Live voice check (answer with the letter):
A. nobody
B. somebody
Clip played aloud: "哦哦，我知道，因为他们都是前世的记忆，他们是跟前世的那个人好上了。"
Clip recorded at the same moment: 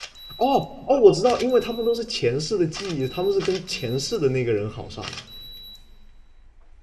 A